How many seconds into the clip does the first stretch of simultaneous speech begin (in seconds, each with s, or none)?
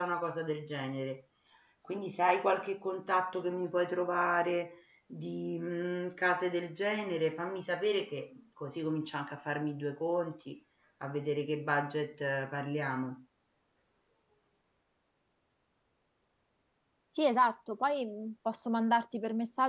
none